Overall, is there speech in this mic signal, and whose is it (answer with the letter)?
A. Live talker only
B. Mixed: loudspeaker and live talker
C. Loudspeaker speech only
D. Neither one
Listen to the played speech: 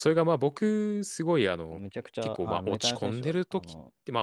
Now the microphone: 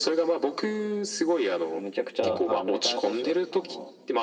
B